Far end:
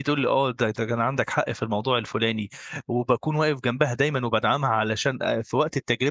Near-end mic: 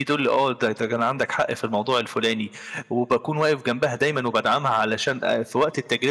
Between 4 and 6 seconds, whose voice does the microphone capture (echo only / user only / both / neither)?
echo only